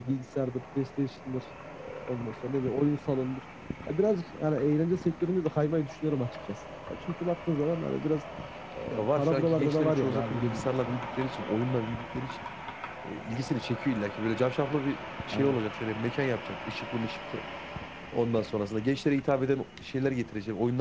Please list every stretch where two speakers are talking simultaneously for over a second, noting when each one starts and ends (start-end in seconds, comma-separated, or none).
8.9-10.9